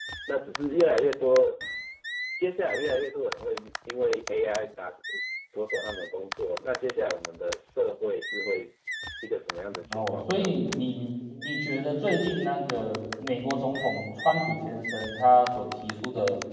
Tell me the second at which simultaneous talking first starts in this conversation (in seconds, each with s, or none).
9.9 s